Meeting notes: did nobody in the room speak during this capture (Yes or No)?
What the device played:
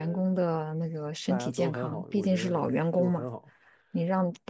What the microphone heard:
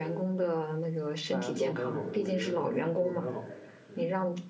No